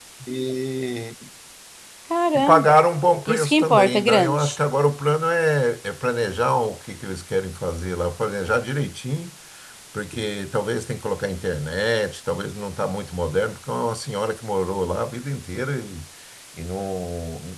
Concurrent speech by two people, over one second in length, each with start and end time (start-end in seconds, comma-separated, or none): 3.3-4.6